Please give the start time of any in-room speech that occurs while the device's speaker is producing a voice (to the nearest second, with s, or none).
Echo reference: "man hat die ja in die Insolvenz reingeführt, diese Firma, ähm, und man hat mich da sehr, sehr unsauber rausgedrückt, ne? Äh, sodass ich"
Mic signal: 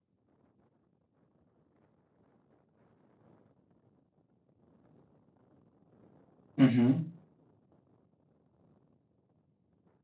7 s